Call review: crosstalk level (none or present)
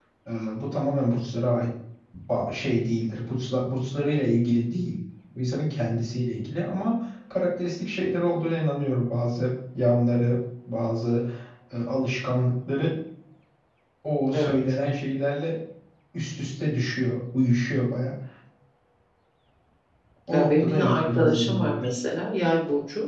present